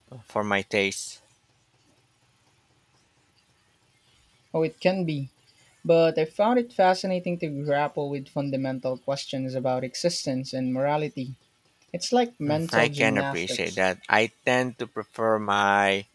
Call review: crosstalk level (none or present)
present